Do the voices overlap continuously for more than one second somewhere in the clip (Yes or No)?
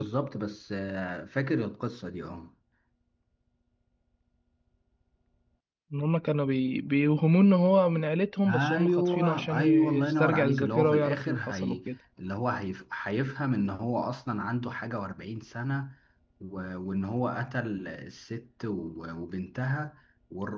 Yes